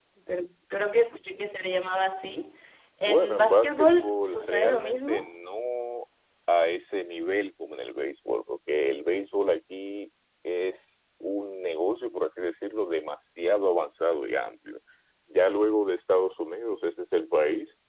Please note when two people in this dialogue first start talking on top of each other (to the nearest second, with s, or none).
3 s